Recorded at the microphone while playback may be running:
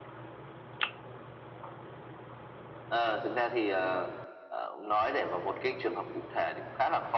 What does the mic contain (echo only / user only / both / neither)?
echo only